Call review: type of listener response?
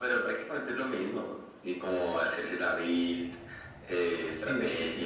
taking over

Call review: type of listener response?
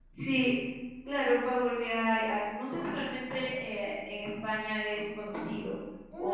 taking over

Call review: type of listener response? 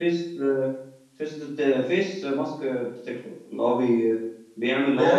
taking over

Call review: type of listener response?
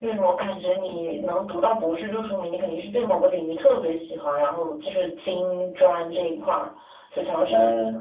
taking over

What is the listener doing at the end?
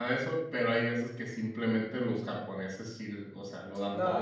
taking over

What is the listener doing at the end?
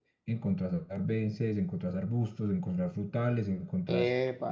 listening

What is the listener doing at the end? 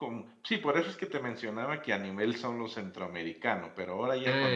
listening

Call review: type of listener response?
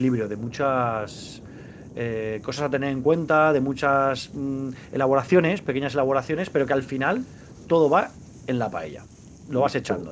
listening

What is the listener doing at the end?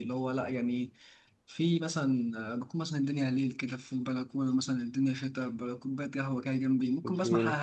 listening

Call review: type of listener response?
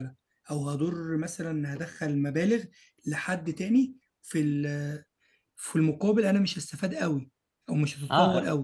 taking over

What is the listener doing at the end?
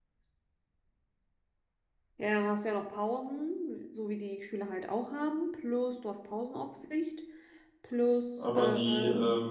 taking over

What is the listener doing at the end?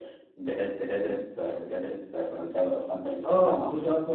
taking over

